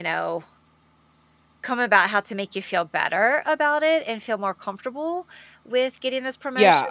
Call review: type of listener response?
taking over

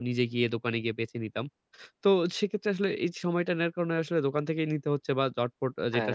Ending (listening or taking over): listening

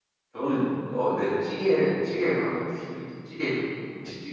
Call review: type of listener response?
taking over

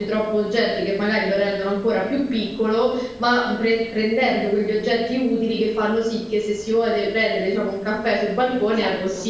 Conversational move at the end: taking over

